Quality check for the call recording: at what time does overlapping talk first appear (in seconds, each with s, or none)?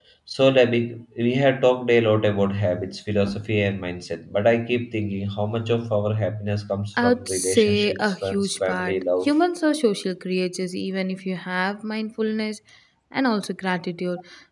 7.0 s